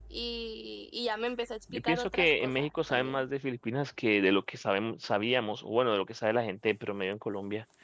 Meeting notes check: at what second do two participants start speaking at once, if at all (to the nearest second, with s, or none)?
2 s